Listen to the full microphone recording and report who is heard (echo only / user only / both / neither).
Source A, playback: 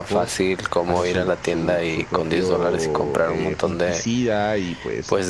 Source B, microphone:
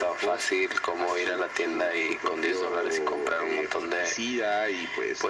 echo only